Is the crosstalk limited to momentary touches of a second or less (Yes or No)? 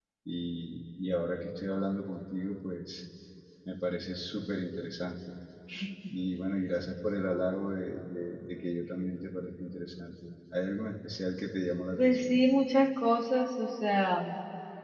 Yes